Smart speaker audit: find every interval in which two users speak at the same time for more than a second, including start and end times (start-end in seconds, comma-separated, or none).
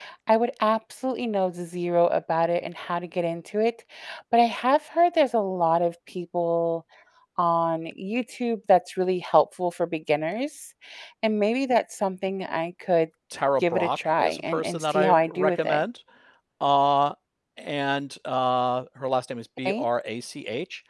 13.6-15.8